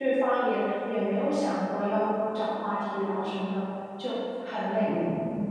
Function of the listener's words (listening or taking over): taking over